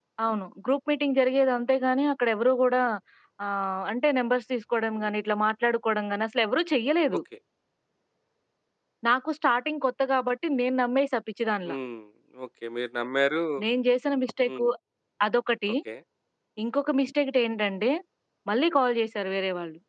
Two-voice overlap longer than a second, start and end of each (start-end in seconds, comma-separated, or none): none